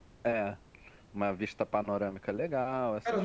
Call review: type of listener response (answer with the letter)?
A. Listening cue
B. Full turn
B